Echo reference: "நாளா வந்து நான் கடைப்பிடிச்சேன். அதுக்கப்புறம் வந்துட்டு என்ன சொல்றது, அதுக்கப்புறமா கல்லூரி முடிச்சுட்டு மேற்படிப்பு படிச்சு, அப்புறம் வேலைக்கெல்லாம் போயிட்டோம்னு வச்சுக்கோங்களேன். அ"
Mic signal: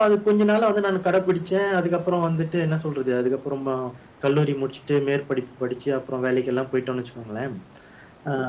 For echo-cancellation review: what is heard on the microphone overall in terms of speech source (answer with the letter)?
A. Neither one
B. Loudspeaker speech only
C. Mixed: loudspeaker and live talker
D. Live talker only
B